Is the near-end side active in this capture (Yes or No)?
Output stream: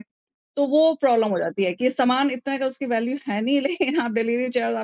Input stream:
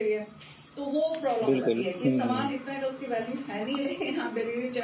Yes